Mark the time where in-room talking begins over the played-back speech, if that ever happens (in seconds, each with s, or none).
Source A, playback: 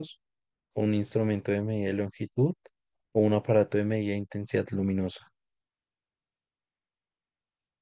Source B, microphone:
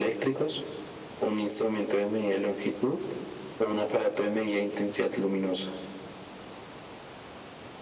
none